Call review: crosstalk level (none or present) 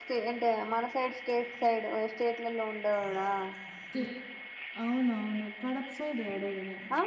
none